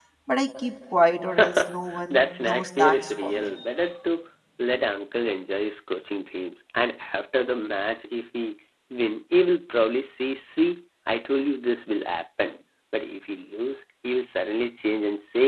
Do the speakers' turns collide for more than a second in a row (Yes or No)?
Yes